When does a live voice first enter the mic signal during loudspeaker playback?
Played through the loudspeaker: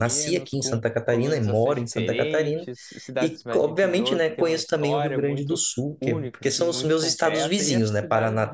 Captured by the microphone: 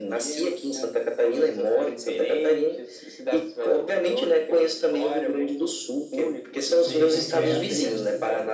7 s

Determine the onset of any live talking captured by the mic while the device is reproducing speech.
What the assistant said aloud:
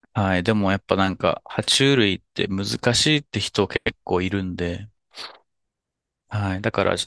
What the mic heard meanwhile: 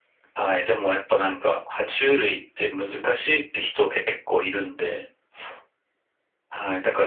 none

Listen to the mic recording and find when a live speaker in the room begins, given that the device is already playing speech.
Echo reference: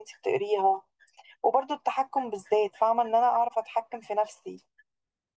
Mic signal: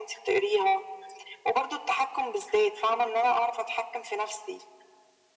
none

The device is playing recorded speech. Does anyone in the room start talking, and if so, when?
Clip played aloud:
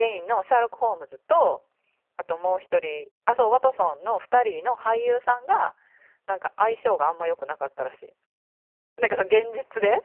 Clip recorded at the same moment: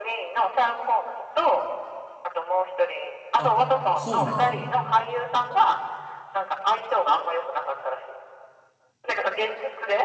3 s

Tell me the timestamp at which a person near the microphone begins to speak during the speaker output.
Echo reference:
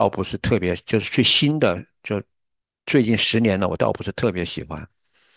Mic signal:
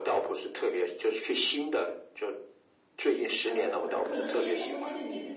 3 s

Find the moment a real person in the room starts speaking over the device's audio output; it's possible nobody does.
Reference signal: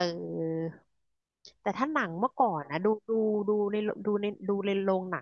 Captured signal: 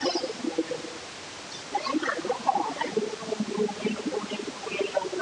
none

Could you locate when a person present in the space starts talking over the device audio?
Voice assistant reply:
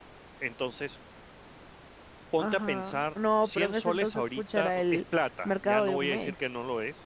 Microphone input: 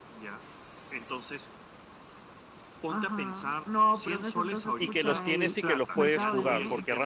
5 s

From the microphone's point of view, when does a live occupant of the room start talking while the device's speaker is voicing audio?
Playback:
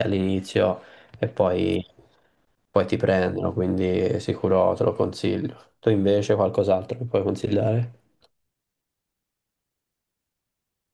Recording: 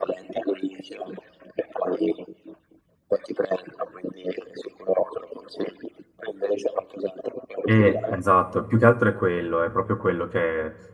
8 s

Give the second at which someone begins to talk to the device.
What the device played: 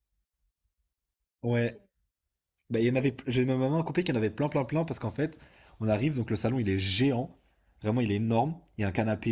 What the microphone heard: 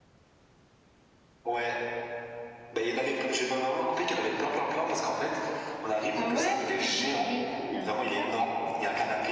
6 s

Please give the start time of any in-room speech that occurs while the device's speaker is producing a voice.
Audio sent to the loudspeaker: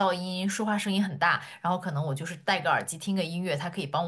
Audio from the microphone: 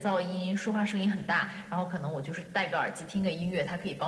none

